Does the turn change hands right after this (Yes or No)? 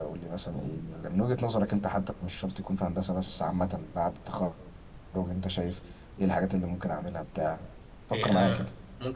Yes